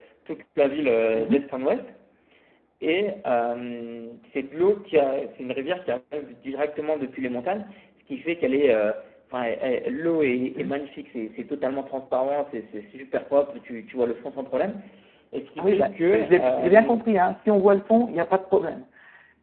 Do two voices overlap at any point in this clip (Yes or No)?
Yes